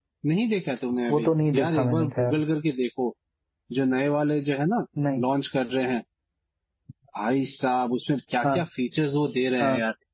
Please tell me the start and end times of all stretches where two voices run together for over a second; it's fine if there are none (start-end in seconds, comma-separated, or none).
1.1-2.4